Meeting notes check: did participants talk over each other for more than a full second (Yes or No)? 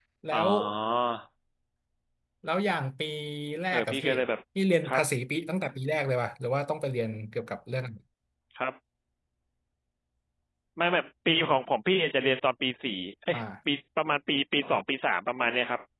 No